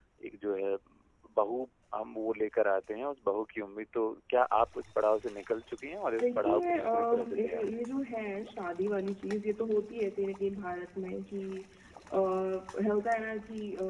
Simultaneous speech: Yes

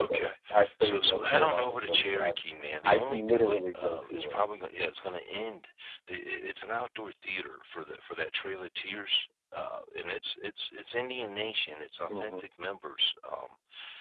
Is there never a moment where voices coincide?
No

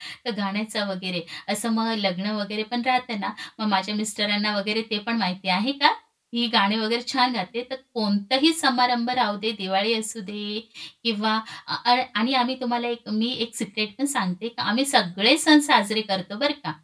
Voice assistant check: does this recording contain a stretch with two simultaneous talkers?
No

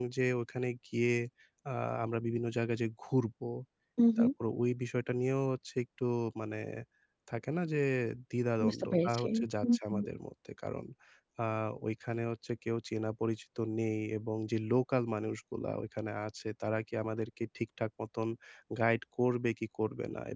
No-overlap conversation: No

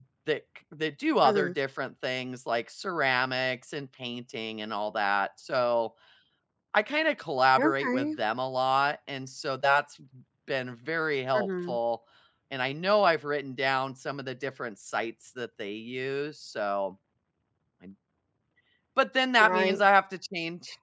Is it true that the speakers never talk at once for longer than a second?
Yes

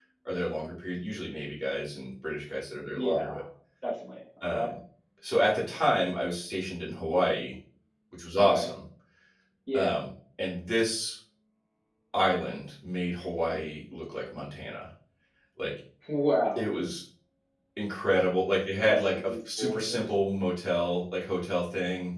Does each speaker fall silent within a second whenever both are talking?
No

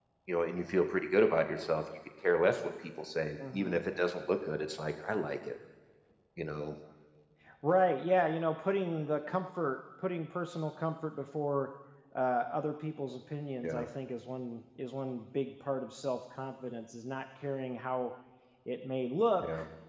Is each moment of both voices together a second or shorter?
Yes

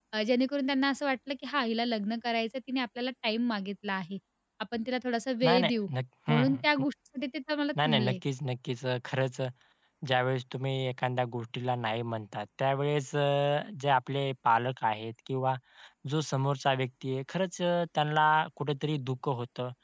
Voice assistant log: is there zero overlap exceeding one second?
Yes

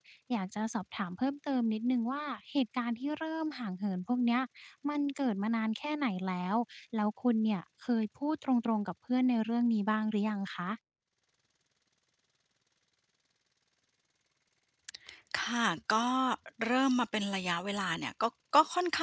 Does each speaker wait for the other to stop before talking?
Yes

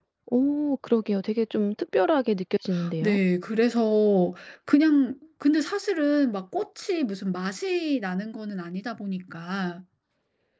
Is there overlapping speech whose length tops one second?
No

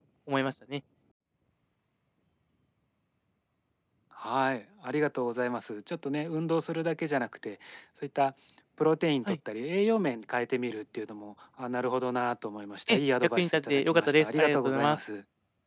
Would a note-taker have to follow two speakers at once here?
Yes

